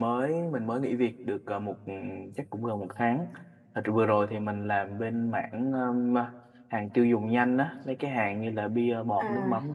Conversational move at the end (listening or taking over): listening